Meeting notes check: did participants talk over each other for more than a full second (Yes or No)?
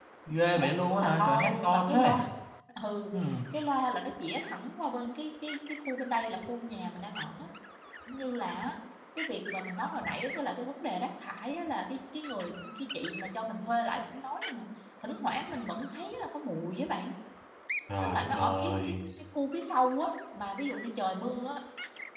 Yes